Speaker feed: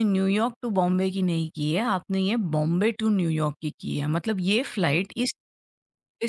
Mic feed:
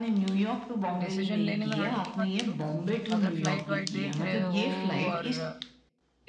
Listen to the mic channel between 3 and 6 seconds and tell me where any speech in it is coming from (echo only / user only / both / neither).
both